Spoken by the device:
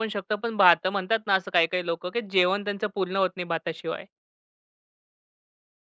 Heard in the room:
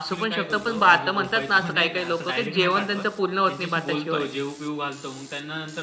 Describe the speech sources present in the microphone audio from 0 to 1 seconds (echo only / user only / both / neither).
both